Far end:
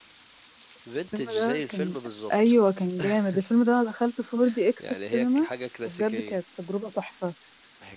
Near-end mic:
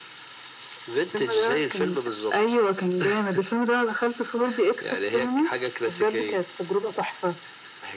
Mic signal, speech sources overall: echo only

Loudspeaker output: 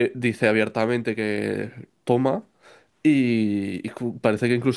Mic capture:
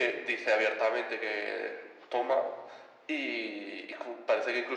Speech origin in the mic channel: echo only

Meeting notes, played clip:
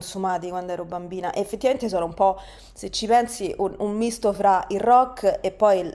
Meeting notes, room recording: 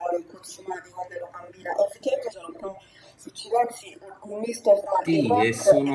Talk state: both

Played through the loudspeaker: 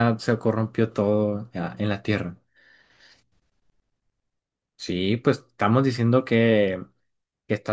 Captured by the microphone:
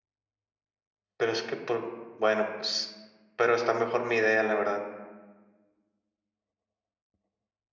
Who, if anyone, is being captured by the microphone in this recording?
user only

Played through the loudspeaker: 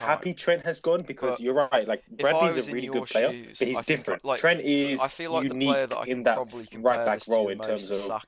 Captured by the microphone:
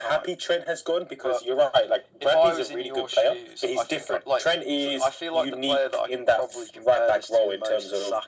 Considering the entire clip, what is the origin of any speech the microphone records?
echo only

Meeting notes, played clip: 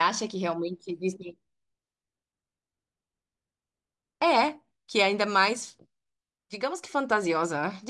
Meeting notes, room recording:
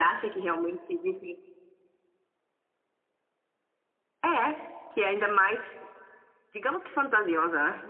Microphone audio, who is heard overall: echo only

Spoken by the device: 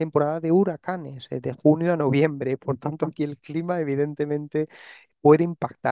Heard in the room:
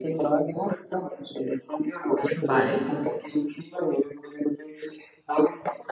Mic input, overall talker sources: both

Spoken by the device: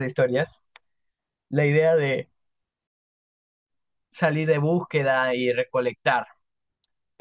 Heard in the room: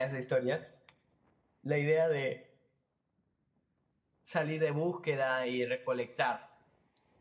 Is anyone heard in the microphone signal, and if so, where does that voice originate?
echo only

